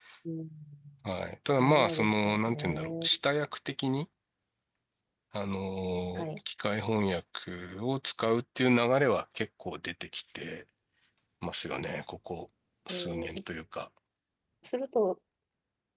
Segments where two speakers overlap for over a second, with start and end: 1.6-3.1

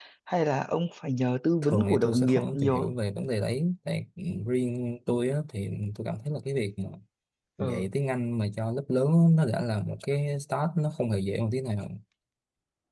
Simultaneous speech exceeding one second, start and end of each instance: 1.6-2.9

